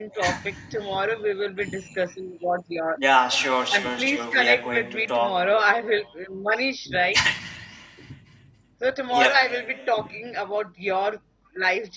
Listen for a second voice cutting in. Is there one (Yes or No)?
Yes